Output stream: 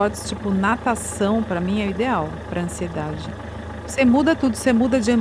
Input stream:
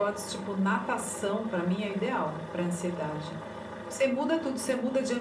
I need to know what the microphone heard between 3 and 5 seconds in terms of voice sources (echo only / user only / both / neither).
echo only